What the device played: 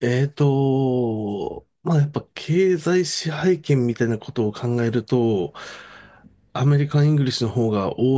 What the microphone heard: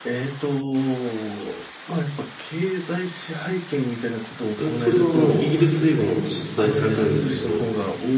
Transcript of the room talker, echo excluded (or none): え、それはあの、イギリス英語も出題されるんですけど、